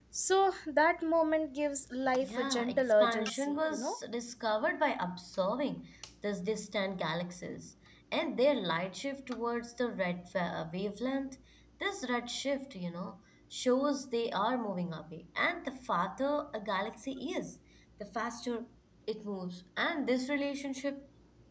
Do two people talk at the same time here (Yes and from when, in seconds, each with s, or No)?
Yes, from 2.2 s